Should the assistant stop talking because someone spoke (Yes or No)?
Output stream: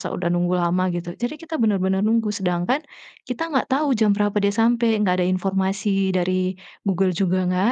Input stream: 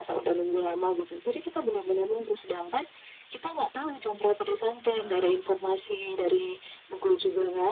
Yes